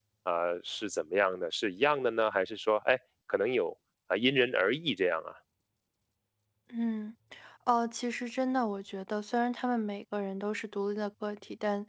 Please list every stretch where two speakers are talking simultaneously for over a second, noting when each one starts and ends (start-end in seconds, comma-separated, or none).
none